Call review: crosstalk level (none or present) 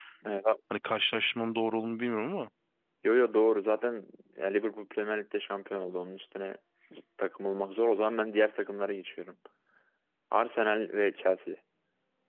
none